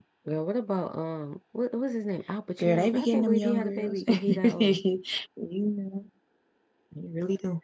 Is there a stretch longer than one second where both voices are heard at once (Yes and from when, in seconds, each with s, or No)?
Yes, from 2.6 s